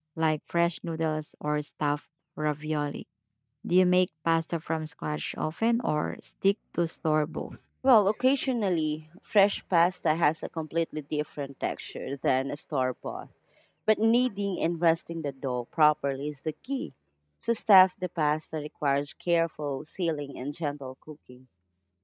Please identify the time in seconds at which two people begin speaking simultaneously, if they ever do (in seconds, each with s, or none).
none